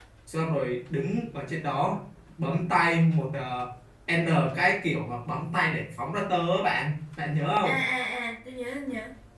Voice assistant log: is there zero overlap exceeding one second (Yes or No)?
Yes